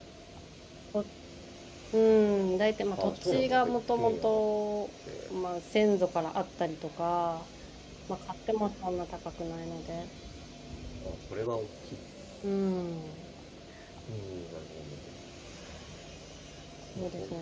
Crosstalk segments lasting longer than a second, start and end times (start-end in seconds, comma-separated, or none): 3.0-4.4